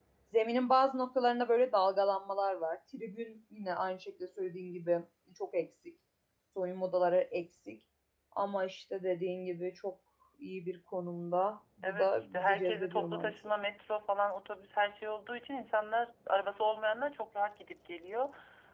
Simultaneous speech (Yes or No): Yes